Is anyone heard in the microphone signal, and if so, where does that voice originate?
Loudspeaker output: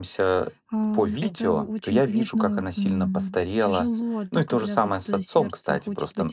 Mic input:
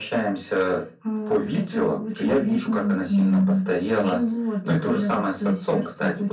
echo only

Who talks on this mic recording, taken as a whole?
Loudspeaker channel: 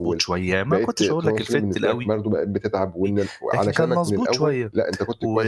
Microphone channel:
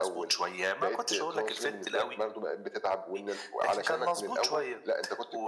echo only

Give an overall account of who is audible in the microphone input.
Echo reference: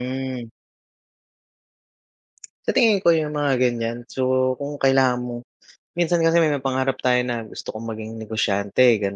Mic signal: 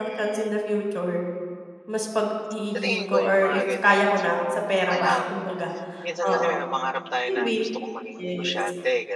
both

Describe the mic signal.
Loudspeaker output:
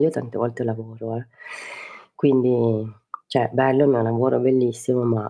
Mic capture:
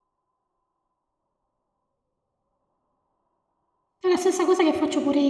user only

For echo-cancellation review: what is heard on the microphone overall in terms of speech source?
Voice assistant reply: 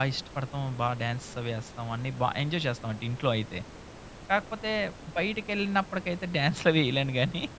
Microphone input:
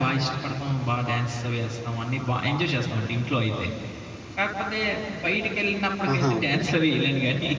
both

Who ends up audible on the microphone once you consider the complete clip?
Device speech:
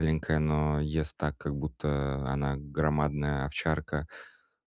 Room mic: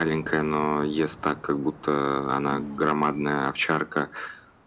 both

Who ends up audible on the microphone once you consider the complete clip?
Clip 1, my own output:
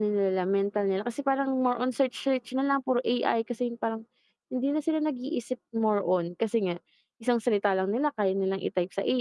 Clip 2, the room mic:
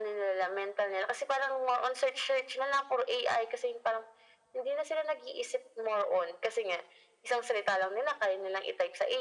echo only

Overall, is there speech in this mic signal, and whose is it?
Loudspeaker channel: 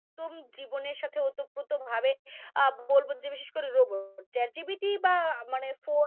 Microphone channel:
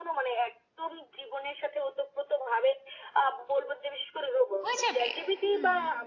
both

